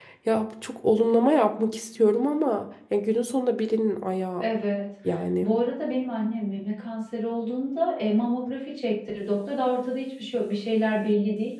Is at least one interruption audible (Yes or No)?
No